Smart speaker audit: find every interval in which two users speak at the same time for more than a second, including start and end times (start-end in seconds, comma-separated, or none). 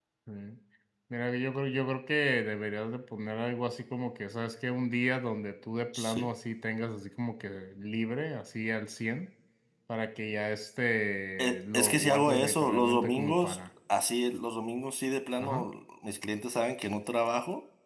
11.4-13.6